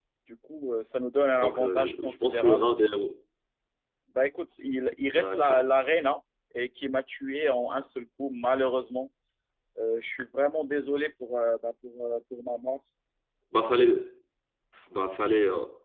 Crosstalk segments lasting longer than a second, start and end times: 1.4-2.7

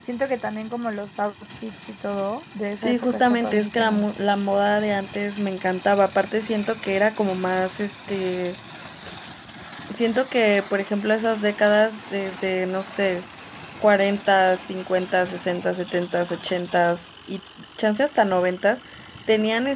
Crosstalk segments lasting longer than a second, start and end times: 2.8-4.0

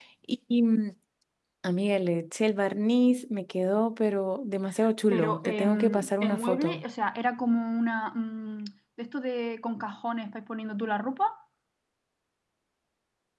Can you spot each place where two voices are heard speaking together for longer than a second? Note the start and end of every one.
5.1-6.8

